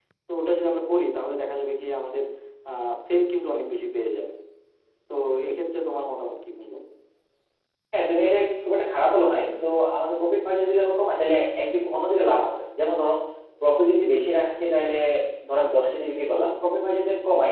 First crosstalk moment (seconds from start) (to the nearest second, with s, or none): none